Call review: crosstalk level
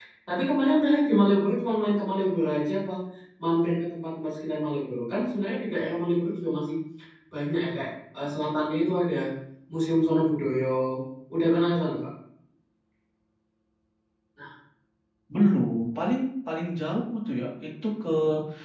none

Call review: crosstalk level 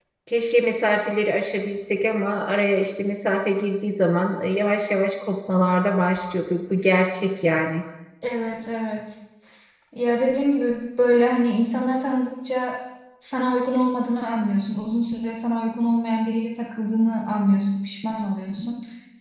none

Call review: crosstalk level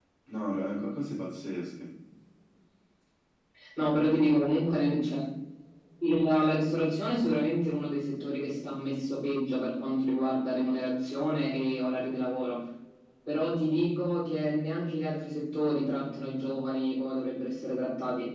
none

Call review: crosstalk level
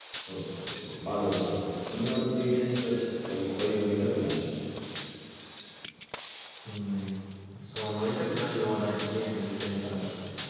none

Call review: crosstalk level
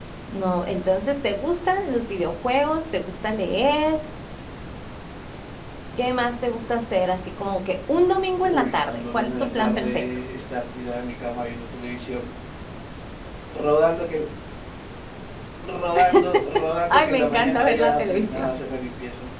present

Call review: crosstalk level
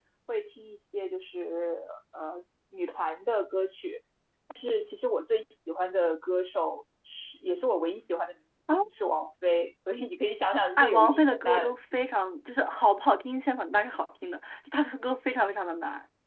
present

